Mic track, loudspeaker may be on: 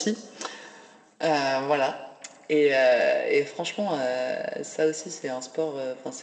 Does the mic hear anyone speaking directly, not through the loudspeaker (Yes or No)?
No